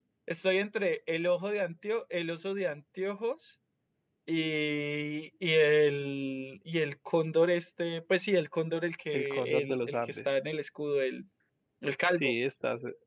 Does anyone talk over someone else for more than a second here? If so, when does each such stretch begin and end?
9.1-10.4

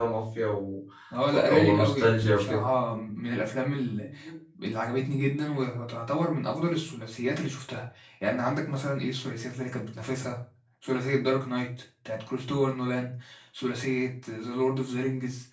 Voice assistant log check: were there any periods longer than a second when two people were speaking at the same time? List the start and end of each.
1.3-2.6

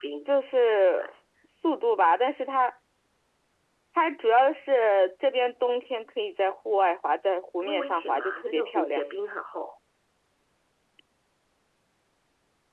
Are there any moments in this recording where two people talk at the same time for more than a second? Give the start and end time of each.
7.6-9.0

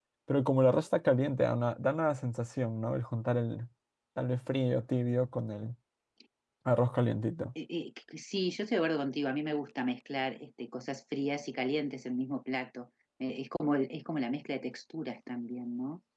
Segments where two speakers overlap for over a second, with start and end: none

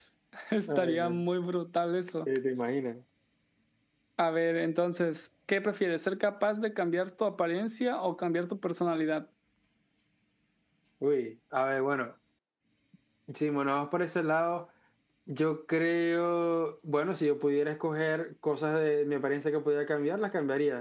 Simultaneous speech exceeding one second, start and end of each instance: none

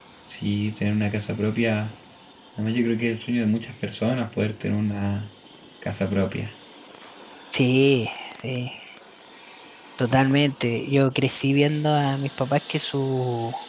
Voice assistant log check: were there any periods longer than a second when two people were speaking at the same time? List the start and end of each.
none

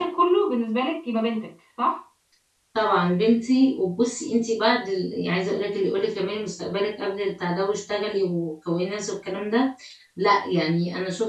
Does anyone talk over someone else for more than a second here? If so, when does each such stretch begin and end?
none

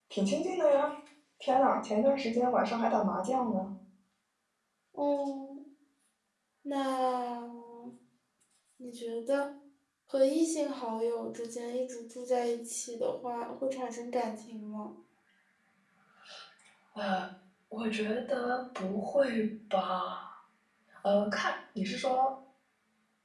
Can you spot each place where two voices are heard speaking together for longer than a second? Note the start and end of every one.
none

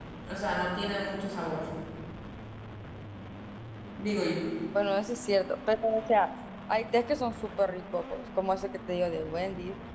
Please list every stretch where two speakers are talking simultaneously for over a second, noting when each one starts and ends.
none

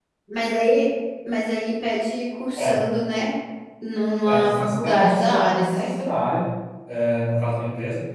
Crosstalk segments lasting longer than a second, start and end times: 4.3-5.9

